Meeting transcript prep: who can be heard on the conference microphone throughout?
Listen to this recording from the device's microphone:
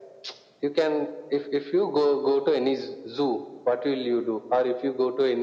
echo only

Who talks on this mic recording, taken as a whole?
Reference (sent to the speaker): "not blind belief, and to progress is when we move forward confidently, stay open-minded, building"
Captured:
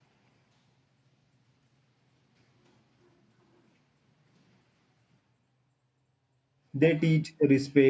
user only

